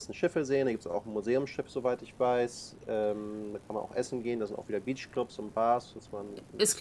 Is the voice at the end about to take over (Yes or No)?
Yes